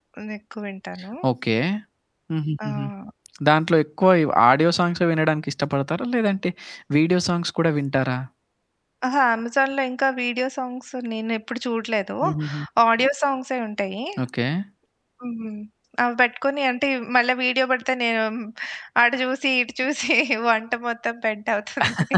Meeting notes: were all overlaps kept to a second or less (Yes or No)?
Yes